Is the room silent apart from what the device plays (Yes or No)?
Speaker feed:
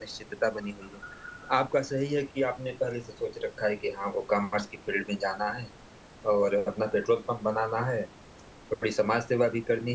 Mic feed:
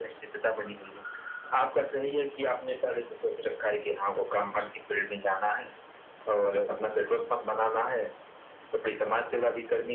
Yes